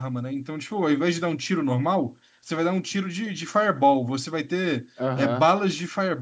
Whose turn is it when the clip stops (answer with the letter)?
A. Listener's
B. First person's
B